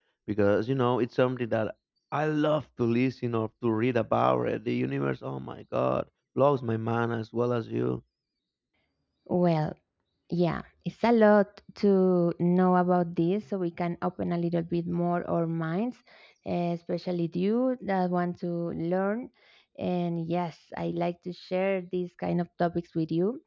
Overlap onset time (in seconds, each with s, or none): none